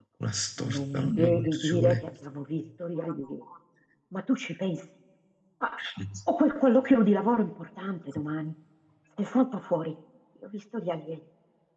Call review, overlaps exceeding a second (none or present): present